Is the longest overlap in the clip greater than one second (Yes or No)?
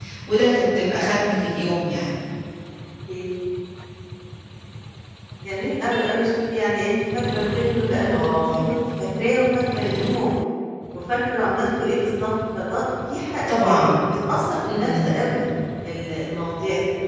No